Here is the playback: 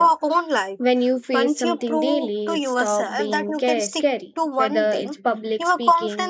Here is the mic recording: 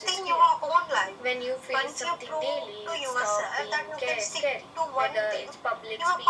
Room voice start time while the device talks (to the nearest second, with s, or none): none